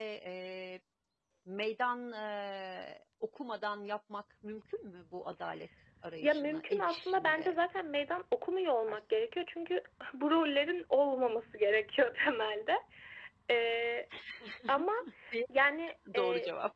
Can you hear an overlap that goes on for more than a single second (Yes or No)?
Yes